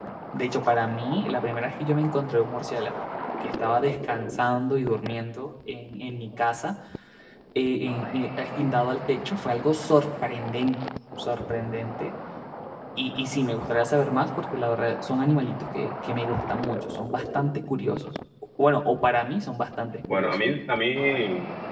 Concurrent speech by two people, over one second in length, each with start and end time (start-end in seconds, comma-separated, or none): none